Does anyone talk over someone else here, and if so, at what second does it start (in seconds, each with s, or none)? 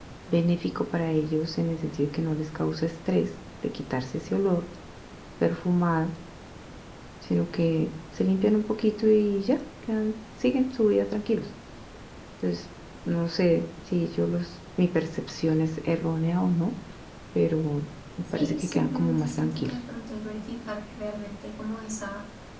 18.2 s